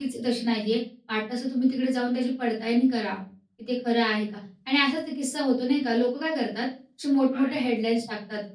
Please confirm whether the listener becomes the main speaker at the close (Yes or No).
No